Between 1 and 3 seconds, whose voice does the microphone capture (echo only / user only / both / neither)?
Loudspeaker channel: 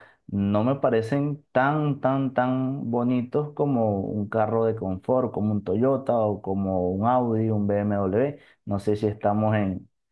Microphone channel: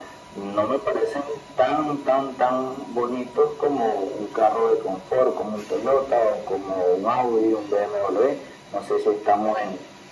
echo only